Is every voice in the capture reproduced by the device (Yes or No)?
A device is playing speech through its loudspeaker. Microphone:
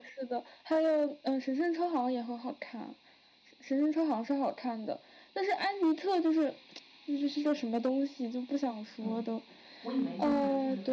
No